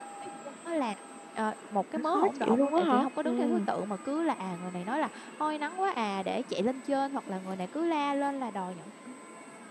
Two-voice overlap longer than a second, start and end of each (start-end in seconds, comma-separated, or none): 2.0-3.6